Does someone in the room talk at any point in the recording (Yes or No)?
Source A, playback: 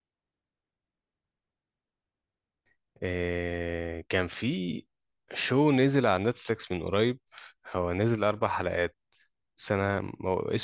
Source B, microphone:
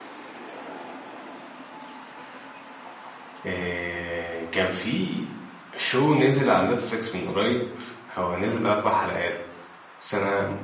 No